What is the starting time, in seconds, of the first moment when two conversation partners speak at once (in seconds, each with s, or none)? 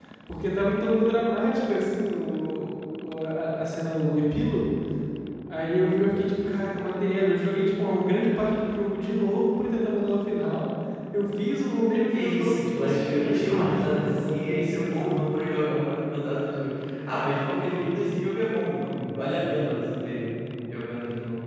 12.1 s